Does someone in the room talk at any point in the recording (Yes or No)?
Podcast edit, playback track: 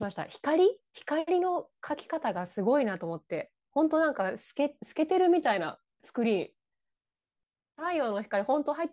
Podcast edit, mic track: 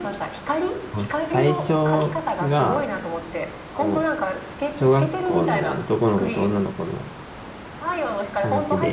Yes